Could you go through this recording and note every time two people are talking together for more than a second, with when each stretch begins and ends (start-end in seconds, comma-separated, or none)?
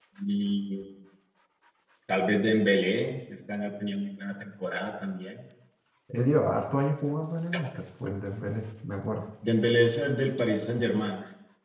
none